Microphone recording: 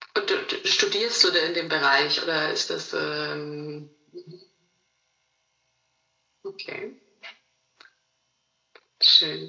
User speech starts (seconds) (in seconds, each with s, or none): none